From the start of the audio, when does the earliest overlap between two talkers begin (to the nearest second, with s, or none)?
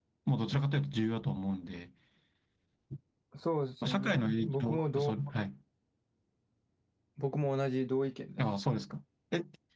4 s